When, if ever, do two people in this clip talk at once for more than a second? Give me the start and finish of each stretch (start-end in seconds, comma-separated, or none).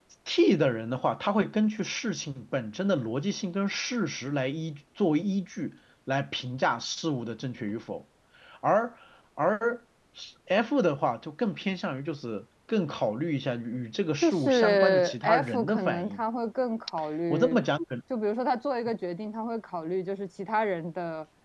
14.2-16.2